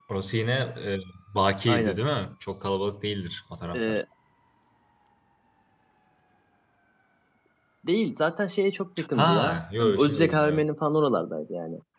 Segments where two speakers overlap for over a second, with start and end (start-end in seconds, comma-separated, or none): 9.1-10.6